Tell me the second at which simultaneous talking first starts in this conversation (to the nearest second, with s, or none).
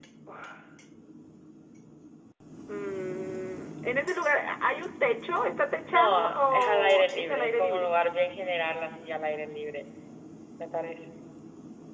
6 s